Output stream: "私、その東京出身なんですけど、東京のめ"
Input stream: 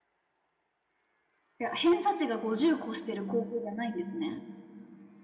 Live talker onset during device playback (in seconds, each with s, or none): 1.6 s